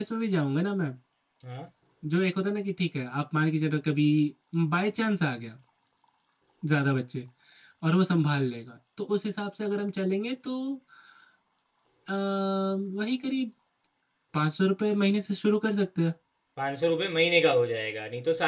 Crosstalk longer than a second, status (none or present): none